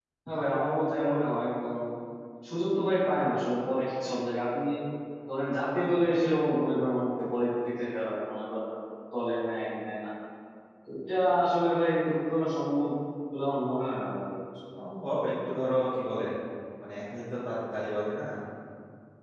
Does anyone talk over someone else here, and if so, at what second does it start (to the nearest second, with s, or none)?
none